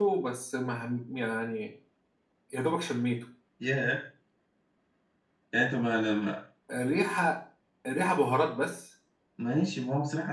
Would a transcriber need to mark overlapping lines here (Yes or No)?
No